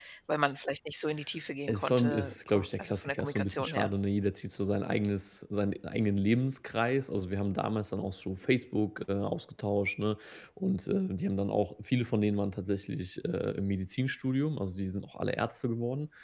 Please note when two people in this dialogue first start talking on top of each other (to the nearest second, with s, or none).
2 s